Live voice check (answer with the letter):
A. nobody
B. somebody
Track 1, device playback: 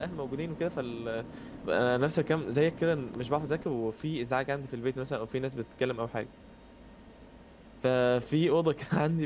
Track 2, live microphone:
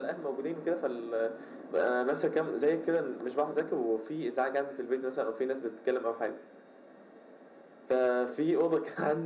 A